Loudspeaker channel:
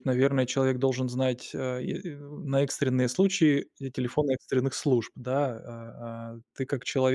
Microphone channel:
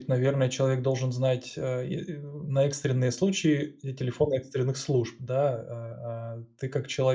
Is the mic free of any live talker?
Yes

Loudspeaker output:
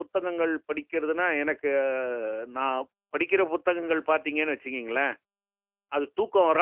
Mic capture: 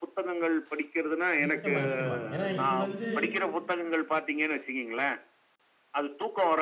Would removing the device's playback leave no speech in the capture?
No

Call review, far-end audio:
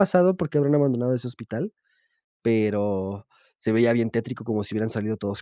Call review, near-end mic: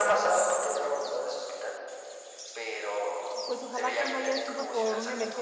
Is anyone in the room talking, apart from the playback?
Yes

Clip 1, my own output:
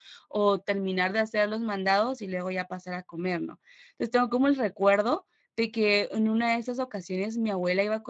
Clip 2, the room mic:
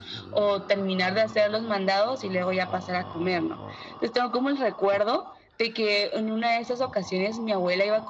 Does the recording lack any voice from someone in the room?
Yes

